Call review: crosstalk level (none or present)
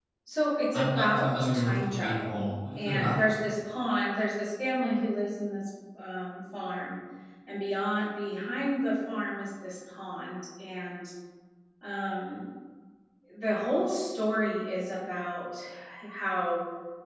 present